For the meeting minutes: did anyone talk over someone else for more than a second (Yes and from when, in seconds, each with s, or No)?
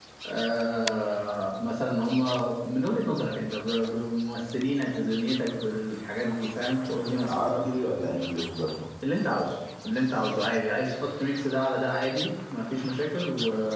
No